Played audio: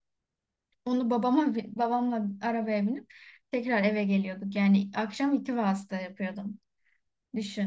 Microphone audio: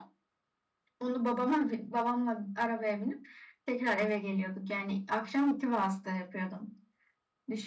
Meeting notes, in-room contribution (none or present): none